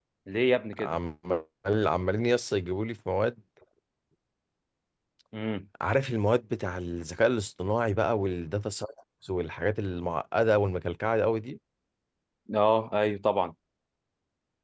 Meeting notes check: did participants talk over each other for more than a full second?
No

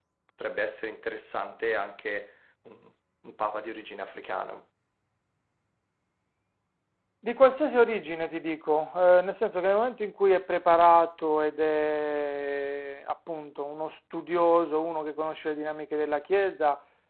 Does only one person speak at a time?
Yes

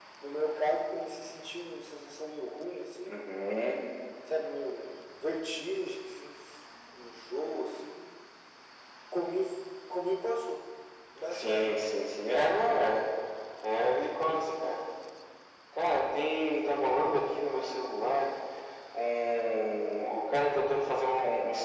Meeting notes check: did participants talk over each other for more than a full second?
No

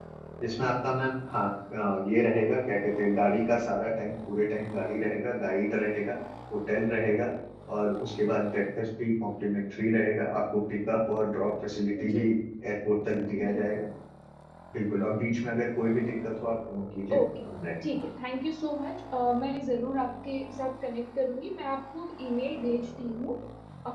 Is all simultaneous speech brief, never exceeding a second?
Yes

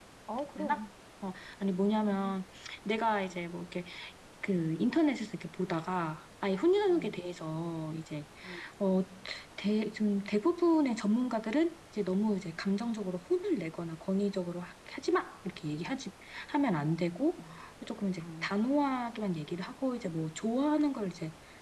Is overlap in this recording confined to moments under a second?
Yes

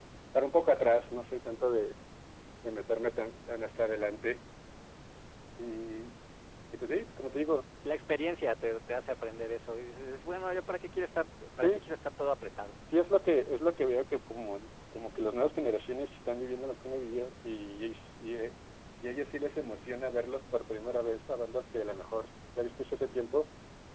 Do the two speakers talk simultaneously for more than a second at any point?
No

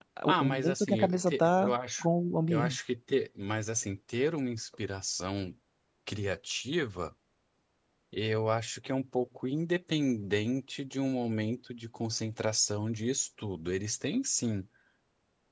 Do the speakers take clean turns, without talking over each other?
No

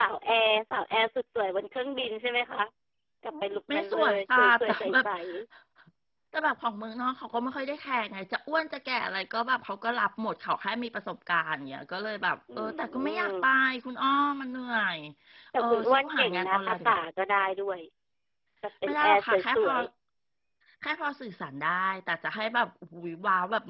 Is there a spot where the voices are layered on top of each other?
Yes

